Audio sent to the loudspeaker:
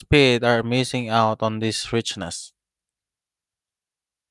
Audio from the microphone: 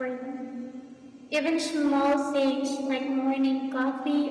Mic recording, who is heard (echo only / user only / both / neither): user only